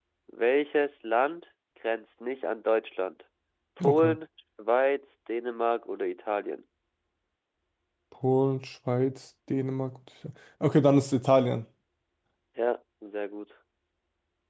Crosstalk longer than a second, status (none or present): none